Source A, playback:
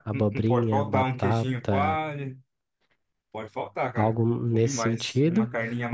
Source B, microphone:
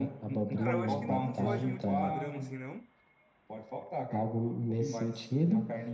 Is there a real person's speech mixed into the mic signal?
Yes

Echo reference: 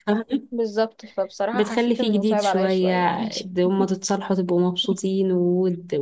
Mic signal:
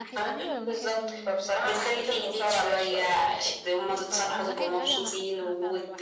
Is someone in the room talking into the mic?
Yes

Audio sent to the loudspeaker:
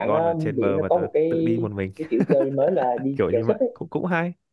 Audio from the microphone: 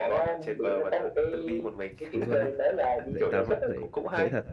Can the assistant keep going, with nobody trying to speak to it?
No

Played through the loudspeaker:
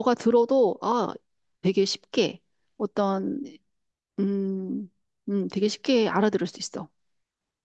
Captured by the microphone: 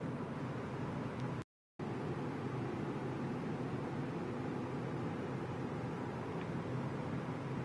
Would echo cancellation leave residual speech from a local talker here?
No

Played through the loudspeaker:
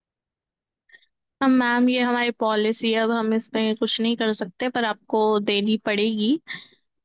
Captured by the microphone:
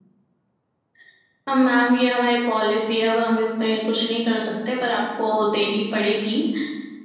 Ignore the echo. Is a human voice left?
No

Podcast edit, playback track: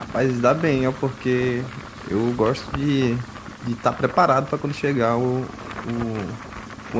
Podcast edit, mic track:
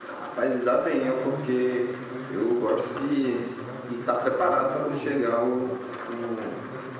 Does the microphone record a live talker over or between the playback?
Yes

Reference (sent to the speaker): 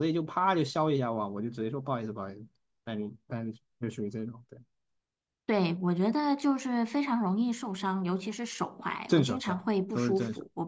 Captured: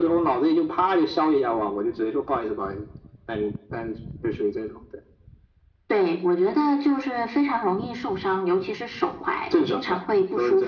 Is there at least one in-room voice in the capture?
No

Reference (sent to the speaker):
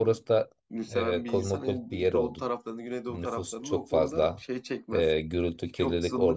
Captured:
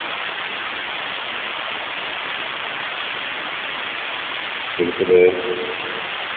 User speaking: Yes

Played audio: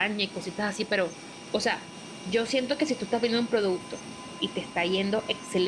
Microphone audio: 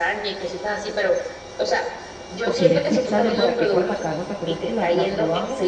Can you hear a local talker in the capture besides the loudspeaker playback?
Yes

